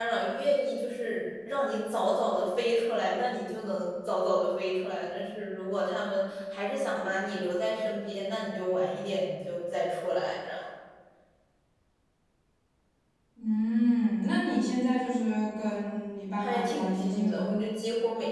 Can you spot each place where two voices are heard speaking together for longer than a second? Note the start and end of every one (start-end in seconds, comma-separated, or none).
16.4-17.6